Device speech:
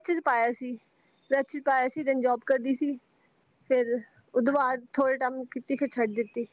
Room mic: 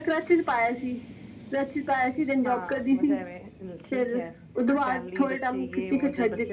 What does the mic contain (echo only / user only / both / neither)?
both